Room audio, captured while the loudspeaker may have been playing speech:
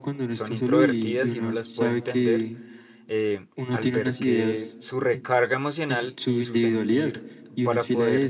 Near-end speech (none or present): present